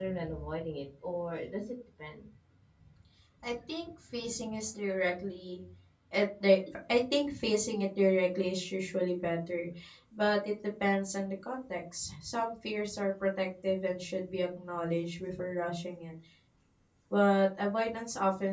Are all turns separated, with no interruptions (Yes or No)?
Yes